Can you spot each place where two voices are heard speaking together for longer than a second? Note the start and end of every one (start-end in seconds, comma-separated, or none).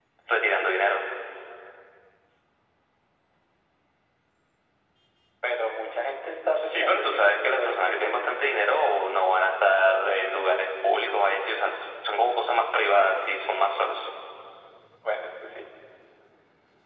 6.6-8.1